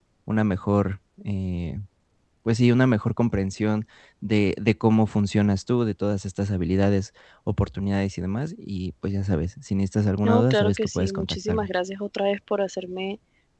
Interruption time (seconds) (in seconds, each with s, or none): 10.2 s